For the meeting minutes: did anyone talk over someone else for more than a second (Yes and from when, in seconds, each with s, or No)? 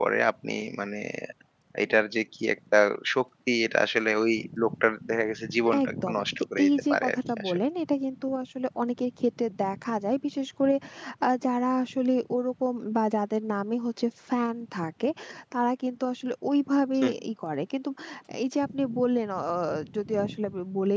Yes, from 5.6 s